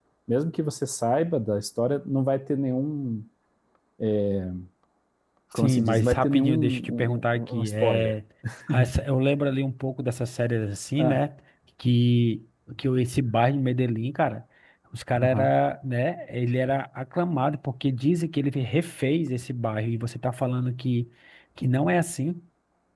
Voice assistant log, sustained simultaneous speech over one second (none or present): present